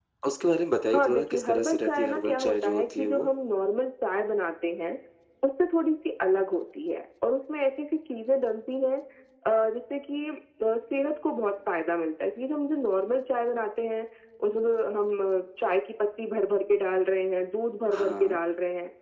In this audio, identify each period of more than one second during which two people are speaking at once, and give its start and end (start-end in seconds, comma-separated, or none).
0.9-3.2